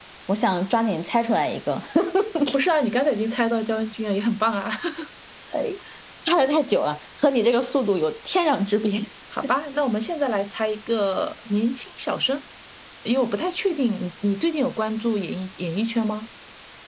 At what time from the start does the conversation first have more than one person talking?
none

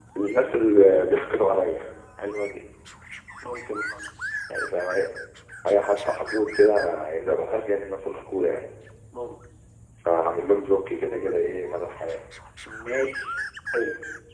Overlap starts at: none

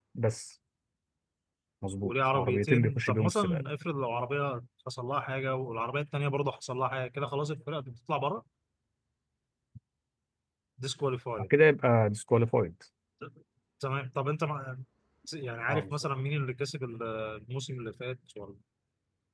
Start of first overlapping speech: 2.0 s

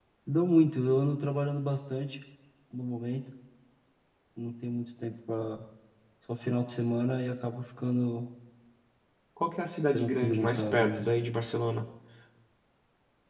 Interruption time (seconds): 9.9 s

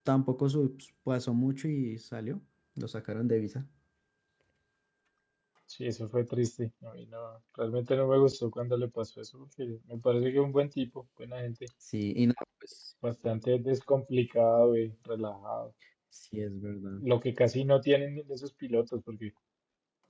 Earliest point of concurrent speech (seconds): none

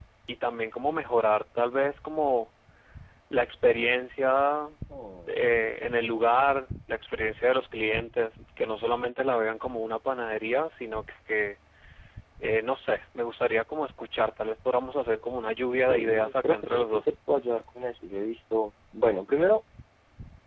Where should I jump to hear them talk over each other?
15.9 s

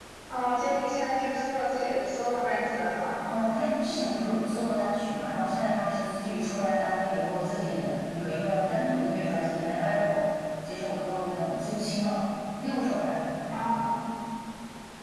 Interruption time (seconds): none

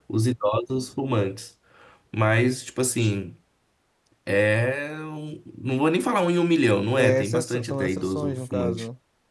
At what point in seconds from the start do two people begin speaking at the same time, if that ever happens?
7.0 s

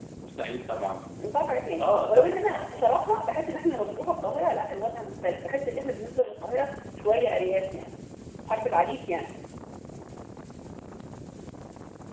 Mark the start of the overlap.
1.8 s

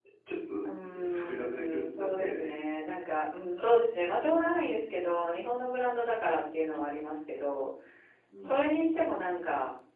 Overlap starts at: 0.6 s

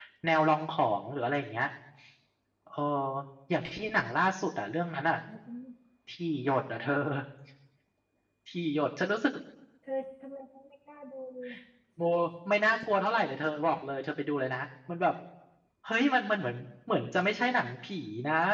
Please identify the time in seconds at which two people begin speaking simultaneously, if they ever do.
none

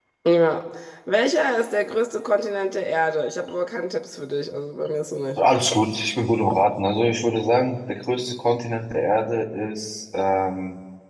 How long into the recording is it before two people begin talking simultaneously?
none

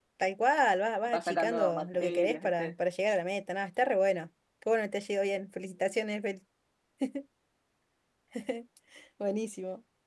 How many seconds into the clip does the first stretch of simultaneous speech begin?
1.1 s

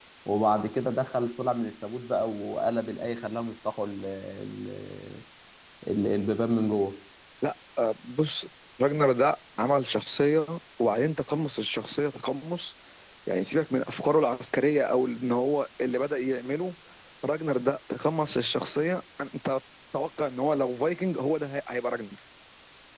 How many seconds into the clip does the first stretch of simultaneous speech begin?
none

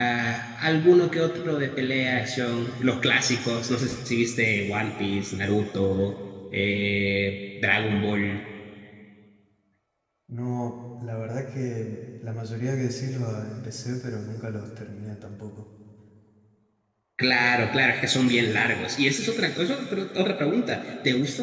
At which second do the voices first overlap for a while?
none

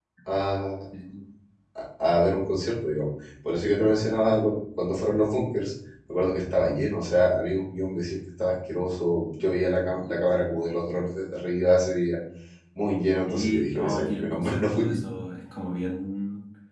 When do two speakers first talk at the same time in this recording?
13.2 s

